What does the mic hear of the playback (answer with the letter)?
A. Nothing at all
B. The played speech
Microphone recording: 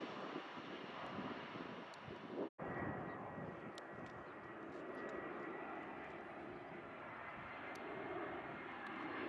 A